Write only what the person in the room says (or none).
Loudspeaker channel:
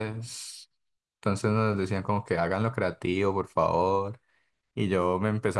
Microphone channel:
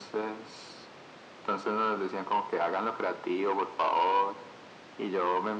none